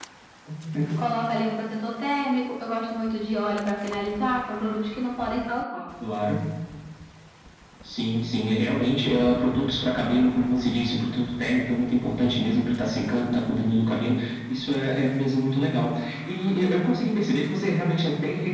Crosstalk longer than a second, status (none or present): none